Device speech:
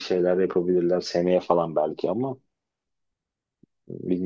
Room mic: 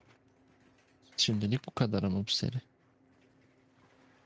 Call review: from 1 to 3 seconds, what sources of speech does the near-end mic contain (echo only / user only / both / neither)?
user only